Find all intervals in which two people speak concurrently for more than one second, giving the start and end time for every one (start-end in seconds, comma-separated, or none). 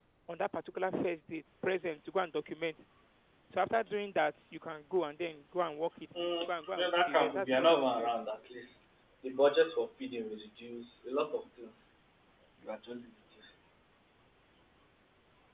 6.2-8.1